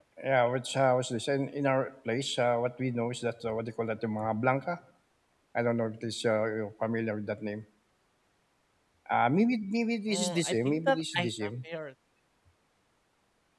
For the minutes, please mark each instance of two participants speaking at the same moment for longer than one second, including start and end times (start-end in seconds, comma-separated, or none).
10.1-11.5